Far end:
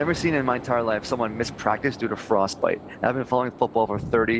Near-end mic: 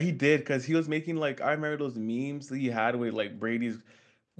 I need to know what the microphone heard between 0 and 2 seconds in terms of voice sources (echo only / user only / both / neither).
user only